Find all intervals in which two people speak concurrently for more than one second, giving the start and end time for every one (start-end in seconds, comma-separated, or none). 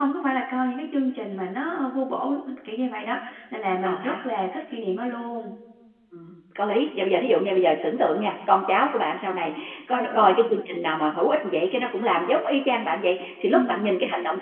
none